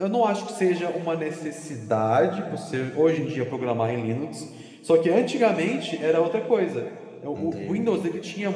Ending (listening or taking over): listening